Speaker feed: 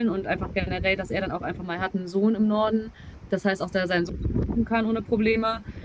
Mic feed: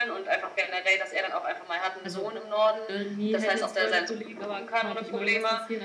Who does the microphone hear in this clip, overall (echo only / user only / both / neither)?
both